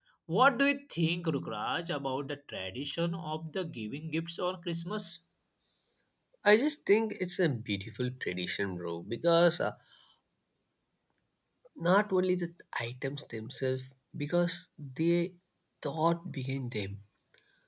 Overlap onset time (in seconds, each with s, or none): none